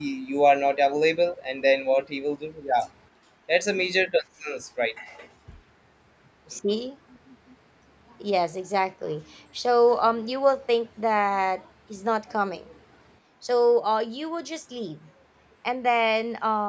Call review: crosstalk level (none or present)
none